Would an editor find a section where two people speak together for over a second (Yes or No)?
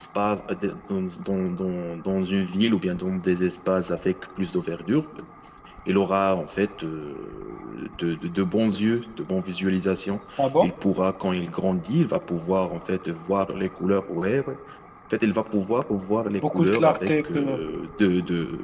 Yes